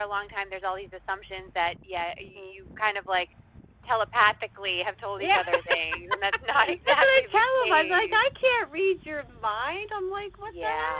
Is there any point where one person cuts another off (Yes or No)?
Yes